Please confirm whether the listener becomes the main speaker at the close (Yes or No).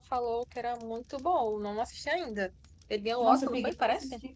Yes